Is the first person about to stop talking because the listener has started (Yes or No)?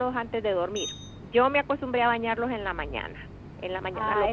Yes